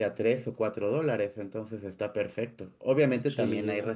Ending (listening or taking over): listening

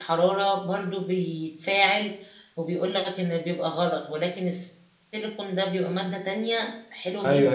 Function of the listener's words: taking over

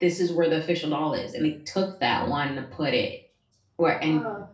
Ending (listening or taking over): listening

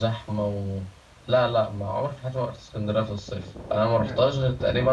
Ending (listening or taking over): listening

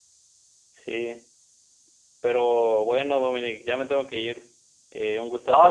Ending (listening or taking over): taking over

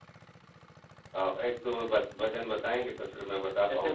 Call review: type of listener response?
taking over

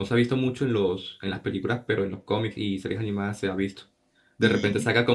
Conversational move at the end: listening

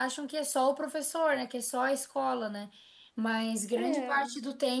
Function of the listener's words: listening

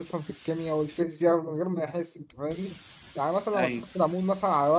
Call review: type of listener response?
listening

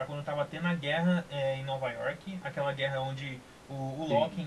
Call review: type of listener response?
listening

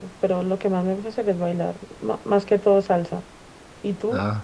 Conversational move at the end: taking over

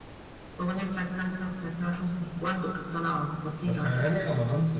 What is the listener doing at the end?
taking over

